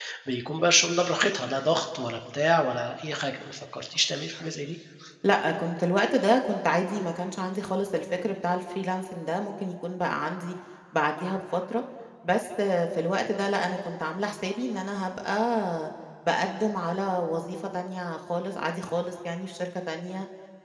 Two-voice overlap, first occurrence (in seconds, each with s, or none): none